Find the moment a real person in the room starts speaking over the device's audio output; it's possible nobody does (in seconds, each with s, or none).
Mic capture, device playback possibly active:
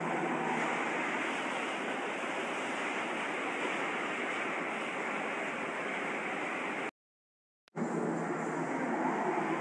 none